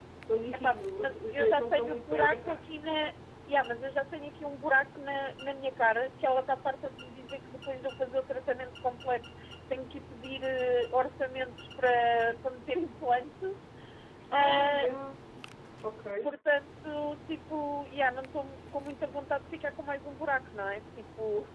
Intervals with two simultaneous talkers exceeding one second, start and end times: 0.5-2.8

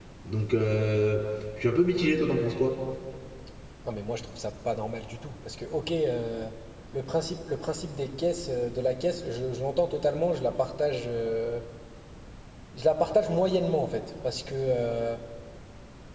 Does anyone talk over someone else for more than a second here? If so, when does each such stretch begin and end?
none

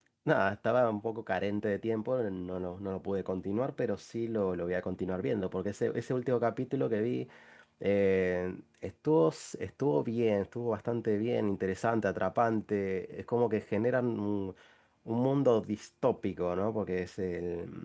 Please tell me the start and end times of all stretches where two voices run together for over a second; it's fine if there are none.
none

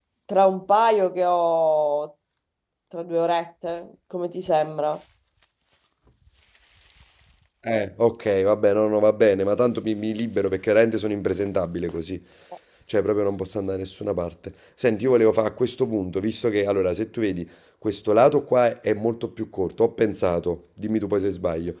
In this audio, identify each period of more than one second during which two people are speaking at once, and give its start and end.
none

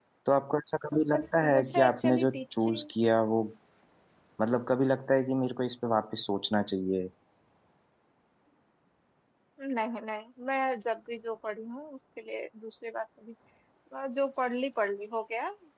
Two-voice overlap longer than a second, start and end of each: 1.4-2.8

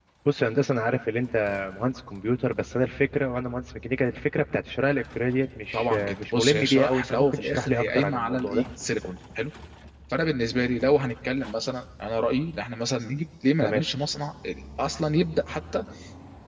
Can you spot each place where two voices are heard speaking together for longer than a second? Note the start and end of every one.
5.7-8.6

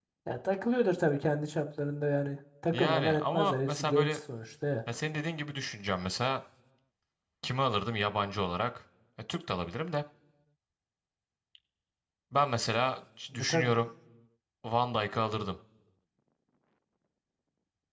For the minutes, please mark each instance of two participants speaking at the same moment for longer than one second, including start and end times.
2.7-4.2

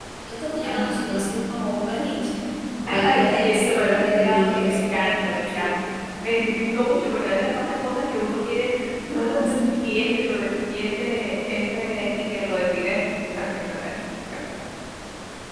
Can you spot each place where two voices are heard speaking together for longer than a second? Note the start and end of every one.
2.9-5.0

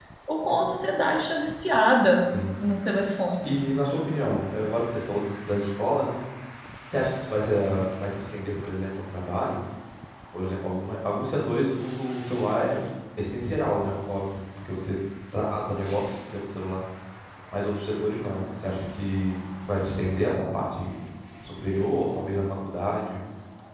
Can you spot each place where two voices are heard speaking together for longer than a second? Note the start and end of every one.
none

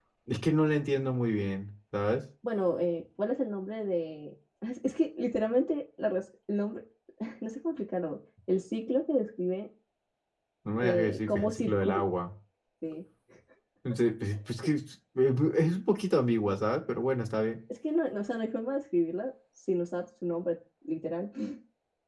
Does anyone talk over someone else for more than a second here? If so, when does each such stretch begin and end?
10.8-12.1

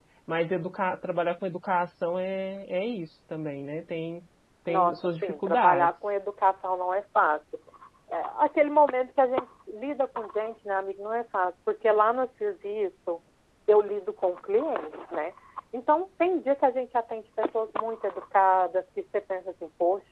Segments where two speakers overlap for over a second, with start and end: 4.7-5.9

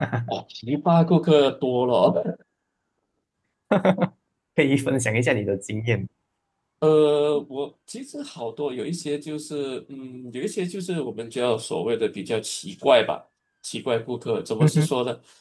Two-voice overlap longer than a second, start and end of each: none

